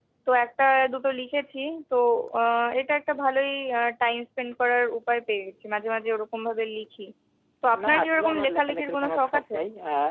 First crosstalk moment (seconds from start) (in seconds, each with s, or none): 7.8 s